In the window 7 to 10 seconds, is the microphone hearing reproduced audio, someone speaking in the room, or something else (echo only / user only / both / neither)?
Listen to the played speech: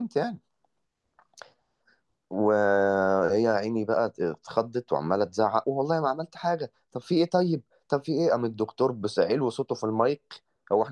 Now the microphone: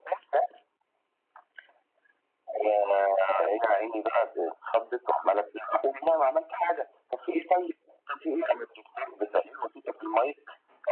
echo only